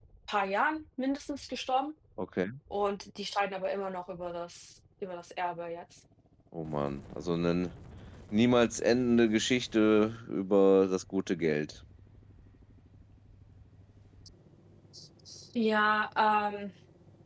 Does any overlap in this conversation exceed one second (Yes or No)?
No